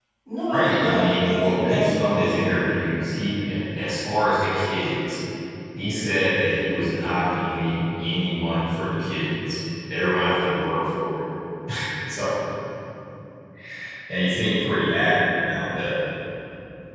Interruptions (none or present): present